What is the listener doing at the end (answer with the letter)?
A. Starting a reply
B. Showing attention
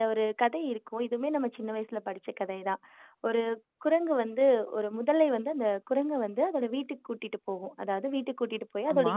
B